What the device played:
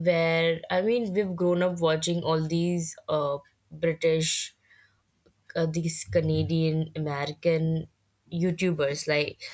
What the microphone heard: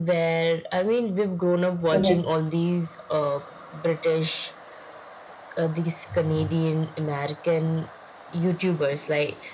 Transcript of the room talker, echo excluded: Correct.

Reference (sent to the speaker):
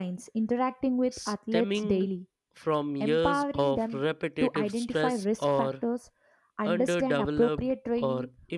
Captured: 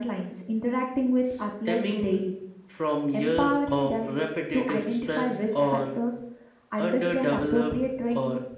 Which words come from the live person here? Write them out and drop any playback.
none

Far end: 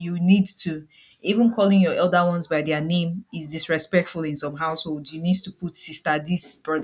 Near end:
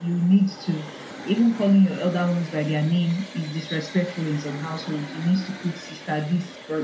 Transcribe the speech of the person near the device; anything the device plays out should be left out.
none

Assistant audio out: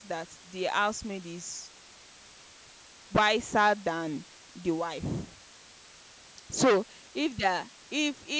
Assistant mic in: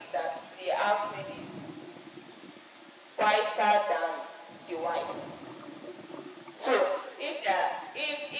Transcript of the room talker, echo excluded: none

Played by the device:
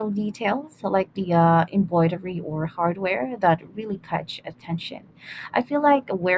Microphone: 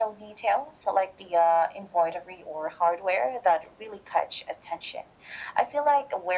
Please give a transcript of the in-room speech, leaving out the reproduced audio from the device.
none

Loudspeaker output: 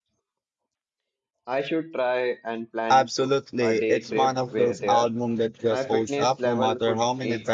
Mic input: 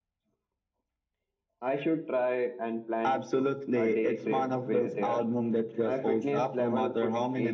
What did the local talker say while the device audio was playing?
none

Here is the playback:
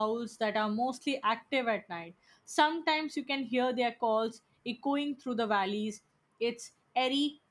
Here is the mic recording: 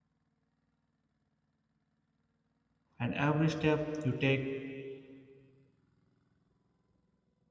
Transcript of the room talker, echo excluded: and every step you take

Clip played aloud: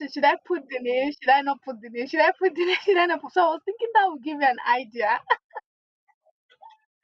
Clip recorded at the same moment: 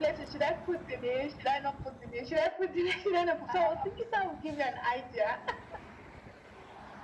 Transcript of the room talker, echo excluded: I have Ampussy.

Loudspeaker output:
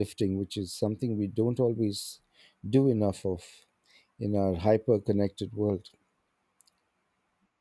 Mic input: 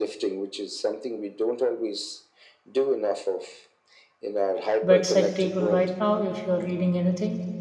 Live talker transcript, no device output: bedside table right now if you're reading anything?

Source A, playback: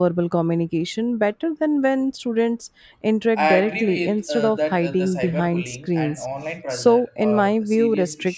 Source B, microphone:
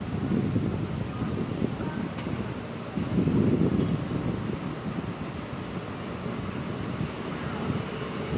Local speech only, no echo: none

